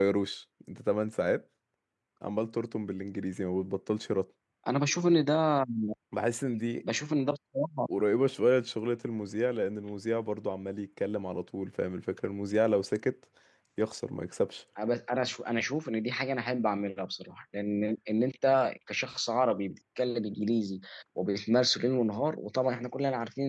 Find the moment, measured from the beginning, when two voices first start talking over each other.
none

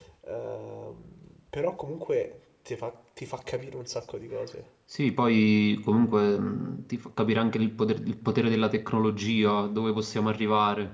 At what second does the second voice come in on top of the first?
none

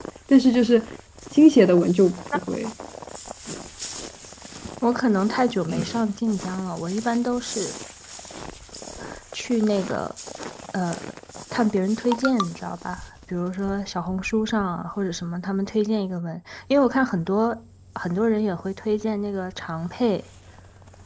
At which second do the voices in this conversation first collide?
none

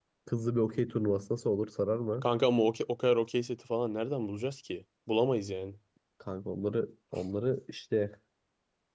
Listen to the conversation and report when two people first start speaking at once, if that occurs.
none

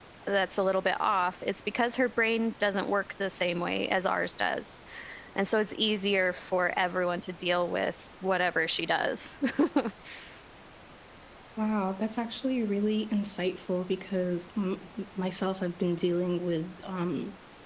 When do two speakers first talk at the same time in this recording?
none

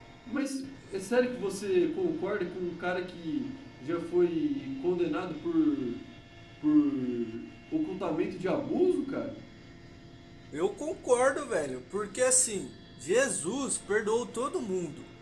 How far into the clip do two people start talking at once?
none

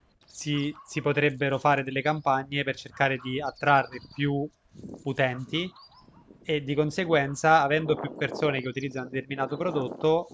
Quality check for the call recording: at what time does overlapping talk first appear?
none

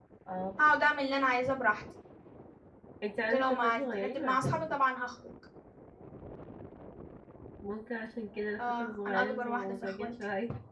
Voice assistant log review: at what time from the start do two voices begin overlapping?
3.3 s

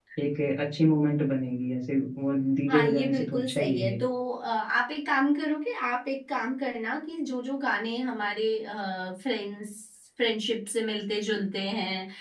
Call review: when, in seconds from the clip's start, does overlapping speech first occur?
2.7 s

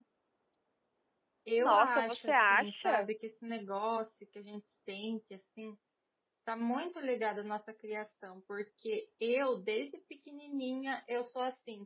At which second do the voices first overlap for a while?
1.6 s

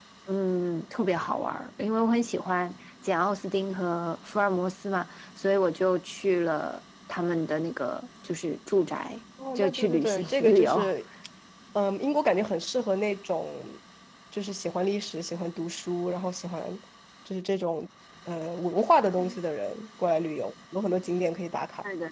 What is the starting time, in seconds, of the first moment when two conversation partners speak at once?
9.4 s

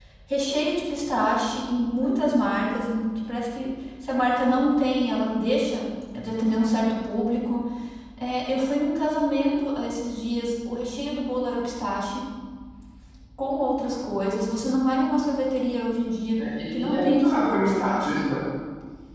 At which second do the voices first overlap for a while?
16.4 s

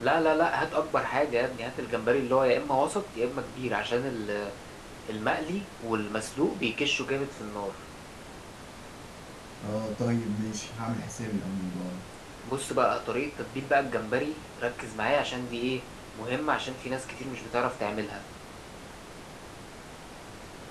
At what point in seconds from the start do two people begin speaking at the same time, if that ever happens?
none

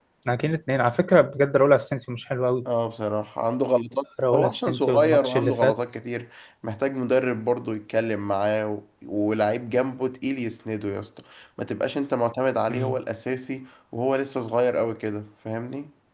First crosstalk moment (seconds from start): 4.3 s

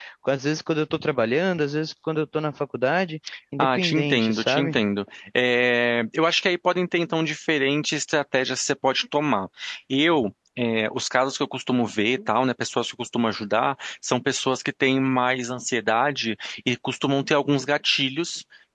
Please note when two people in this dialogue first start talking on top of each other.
3.6 s

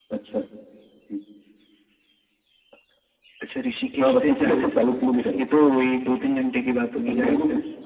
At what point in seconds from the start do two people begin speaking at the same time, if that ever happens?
4.0 s

